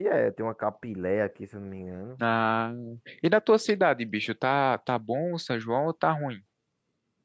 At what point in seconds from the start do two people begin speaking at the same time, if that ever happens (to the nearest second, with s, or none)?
none